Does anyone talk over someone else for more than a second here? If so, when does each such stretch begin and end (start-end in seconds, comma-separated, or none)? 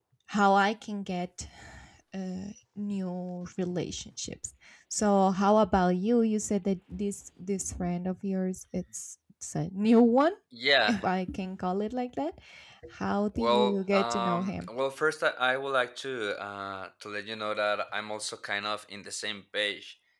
13.3-14.7